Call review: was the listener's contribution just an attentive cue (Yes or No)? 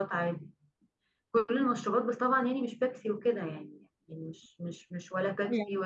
Yes